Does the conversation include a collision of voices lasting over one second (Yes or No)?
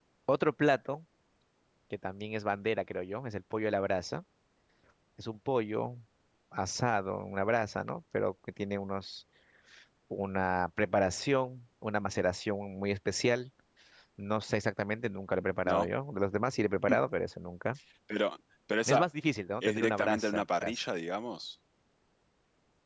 Yes